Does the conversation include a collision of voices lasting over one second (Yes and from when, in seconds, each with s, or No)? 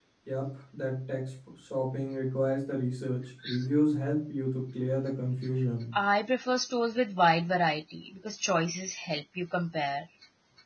No